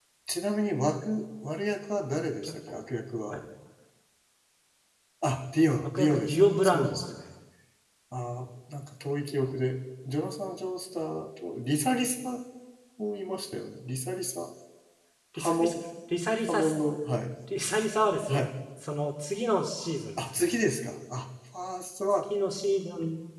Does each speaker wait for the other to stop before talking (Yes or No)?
No